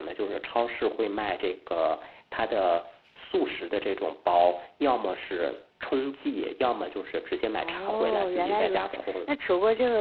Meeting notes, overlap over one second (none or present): present